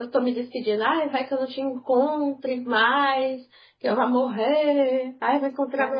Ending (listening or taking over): taking over